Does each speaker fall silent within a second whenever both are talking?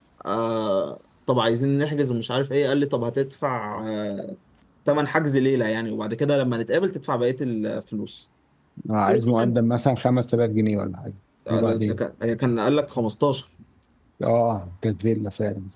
Yes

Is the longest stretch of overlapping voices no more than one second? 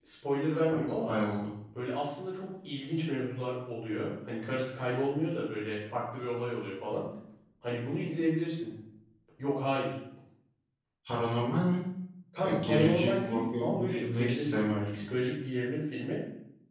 No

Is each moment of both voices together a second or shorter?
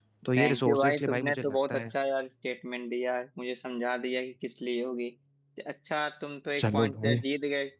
No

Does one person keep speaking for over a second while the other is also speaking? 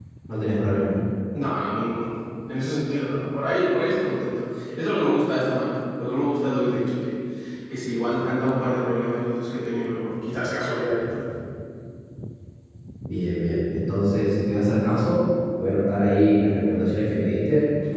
No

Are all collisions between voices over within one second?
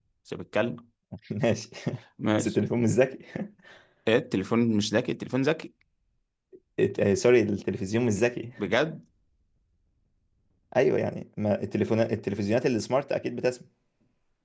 Yes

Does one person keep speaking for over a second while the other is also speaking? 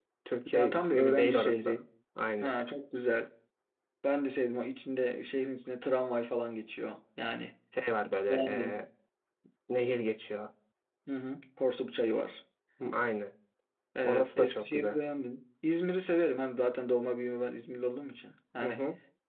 Yes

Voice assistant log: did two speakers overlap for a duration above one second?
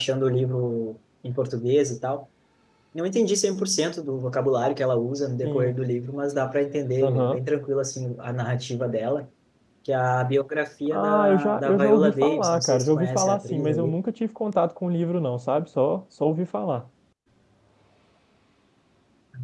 Yes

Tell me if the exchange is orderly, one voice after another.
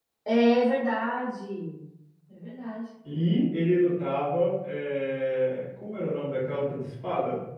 Yes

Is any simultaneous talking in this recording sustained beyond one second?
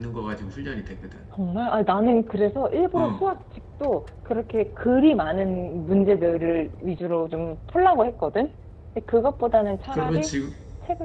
No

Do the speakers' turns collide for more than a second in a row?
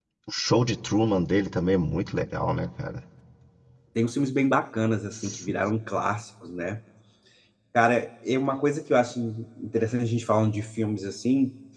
No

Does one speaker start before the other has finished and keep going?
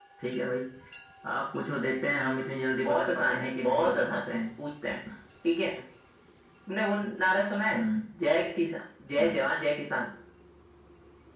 Yes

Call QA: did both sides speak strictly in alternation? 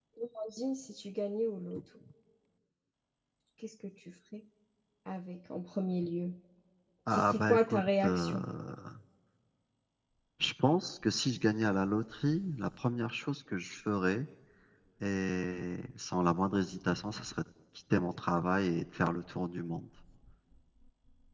No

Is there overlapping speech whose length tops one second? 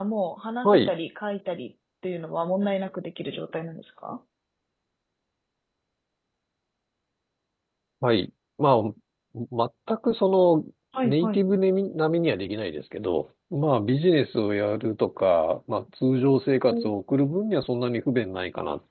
No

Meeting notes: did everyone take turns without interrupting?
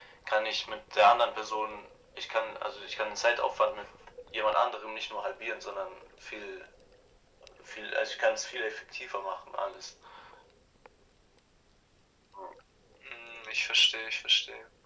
Yes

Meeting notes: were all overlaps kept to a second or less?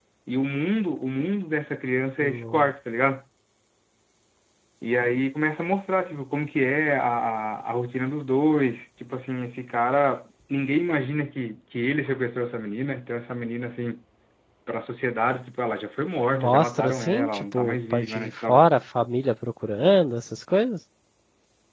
No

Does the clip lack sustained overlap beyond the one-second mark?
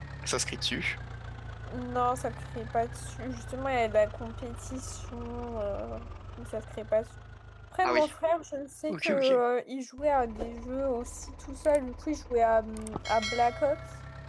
Yes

